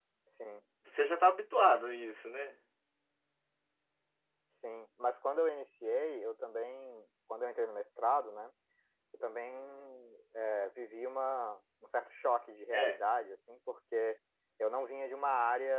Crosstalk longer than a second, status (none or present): none